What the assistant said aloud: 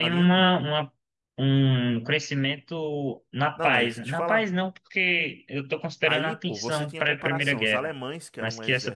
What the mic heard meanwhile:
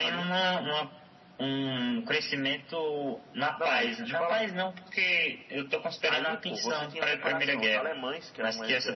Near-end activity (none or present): none